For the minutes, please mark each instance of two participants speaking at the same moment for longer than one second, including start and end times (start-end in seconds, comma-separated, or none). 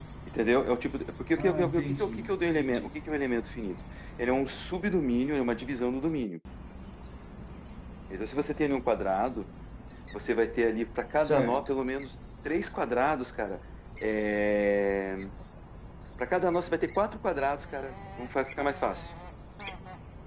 1.4-2.9